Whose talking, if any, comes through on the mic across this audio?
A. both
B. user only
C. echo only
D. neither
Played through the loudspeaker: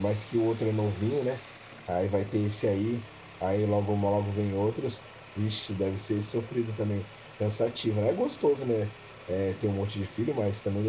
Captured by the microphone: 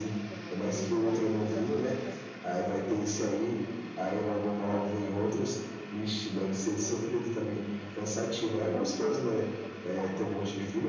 A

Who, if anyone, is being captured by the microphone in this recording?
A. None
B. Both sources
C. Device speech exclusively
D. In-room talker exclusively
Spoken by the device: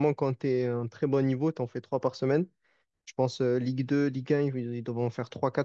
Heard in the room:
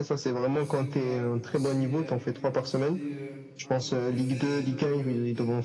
B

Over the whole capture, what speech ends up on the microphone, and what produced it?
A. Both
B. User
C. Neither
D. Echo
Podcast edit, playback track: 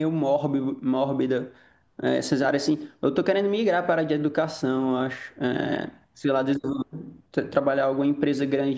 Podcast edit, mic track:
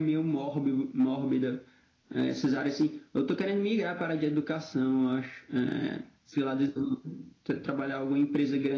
D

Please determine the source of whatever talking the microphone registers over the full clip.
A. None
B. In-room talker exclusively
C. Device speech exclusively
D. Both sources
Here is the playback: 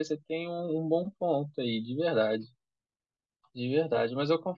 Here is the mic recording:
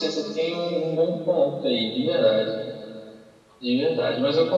C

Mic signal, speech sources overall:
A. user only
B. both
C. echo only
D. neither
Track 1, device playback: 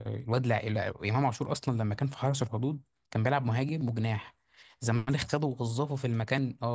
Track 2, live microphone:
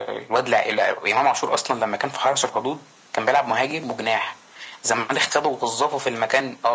C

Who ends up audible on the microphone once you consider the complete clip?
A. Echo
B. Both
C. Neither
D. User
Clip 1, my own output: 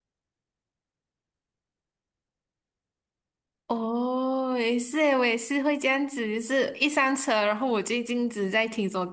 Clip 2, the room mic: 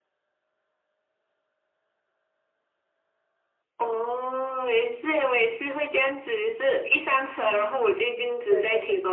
B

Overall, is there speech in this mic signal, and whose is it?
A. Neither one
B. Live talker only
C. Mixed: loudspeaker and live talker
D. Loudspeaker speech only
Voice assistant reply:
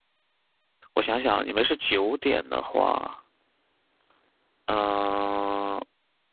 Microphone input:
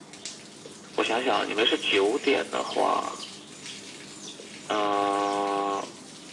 D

